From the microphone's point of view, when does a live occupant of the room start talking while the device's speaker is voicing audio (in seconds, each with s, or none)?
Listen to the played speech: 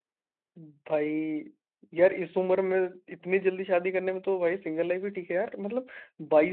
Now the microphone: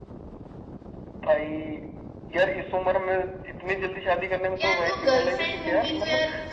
4.6 s